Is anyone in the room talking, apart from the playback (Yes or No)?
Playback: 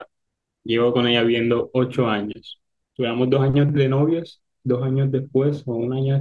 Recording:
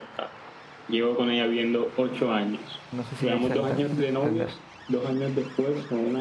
Yes